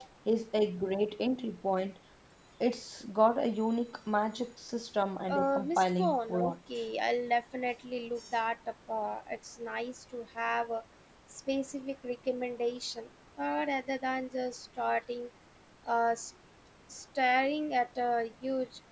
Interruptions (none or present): present